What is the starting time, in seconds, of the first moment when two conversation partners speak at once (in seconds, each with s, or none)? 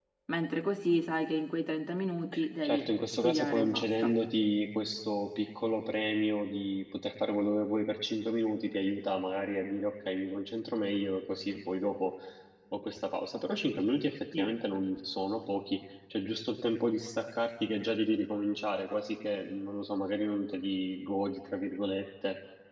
2.6 s